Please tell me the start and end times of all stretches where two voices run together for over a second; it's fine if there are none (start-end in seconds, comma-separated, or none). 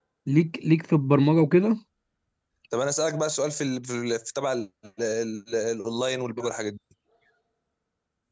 none